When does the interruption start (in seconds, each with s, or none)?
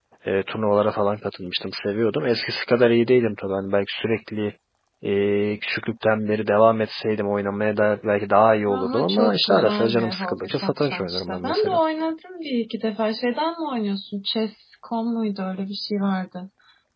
8.7 s